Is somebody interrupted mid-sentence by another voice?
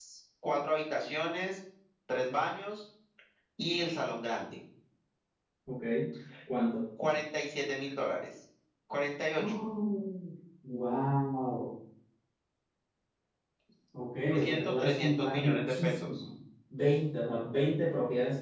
Yes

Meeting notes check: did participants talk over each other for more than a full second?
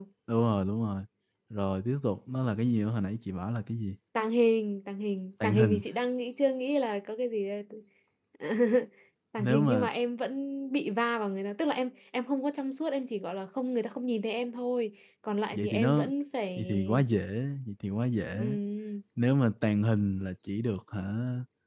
No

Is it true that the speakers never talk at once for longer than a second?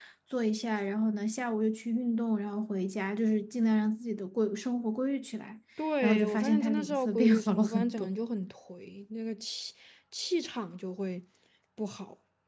No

